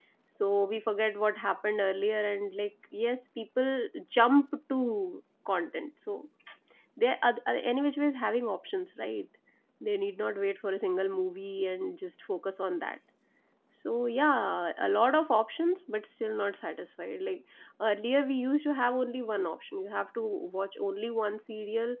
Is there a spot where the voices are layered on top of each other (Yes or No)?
No